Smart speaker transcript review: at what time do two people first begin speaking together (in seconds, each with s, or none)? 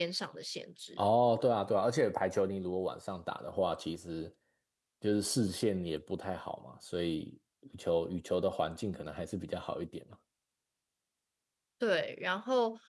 none